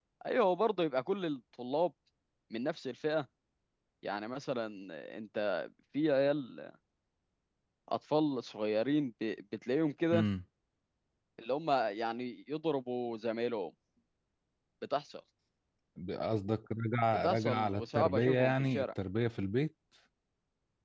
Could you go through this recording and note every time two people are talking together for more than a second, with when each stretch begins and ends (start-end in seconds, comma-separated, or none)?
17.1-18.9